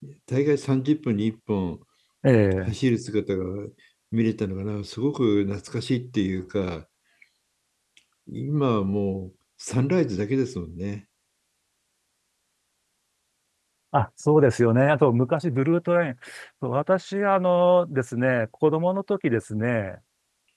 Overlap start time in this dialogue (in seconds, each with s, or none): none